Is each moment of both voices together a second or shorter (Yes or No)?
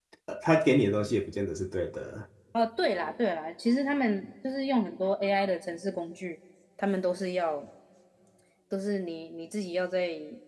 Yes